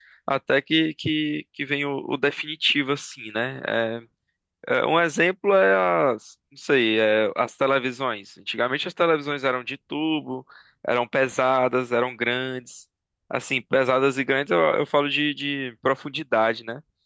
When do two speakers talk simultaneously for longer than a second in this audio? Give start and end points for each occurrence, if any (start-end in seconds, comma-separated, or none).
none